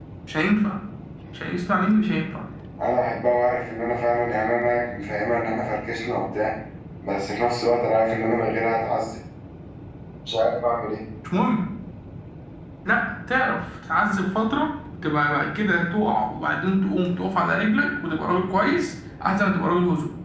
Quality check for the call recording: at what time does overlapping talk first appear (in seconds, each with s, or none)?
none